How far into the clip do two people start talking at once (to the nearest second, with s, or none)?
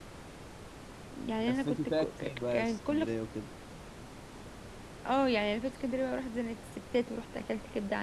1 s